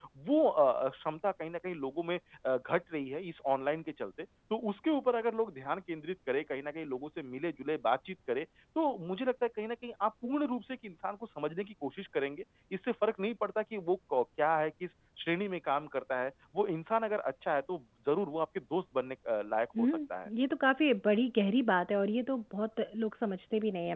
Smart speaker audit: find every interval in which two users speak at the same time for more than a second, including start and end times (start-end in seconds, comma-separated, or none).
none